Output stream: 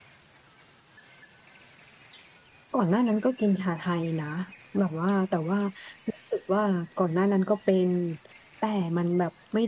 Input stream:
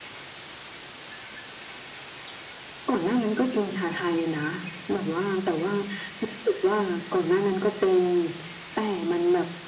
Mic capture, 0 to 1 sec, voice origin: neither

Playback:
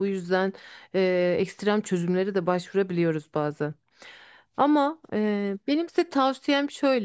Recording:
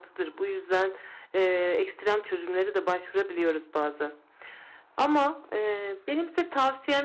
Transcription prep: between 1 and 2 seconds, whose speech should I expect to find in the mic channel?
echo only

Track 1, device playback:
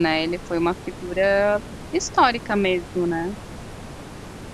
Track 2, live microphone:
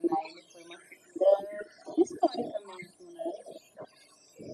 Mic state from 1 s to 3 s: echo only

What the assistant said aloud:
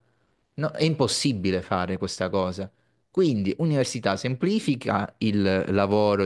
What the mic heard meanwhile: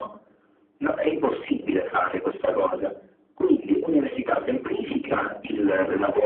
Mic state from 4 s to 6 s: echo only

